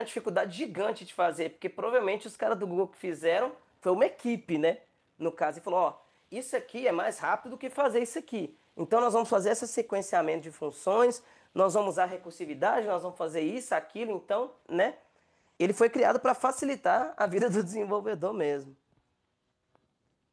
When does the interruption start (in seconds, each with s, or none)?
none